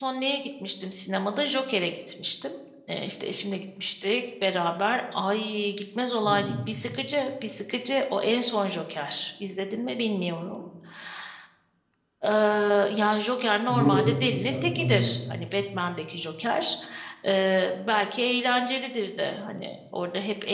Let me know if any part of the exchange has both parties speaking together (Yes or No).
Yes